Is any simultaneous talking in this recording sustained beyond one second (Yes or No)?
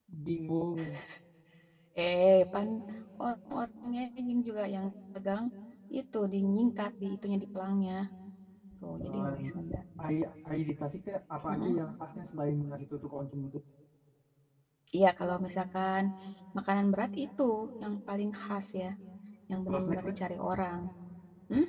No